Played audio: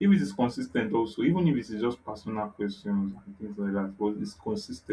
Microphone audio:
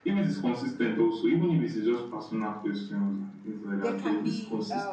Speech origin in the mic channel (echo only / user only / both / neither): both